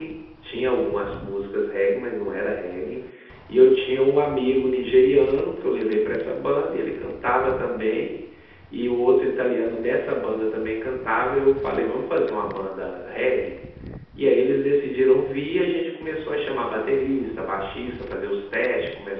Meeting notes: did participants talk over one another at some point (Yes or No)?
No